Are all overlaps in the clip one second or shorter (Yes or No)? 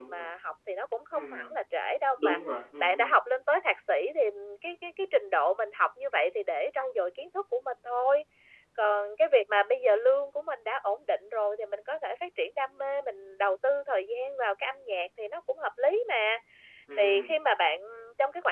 Yes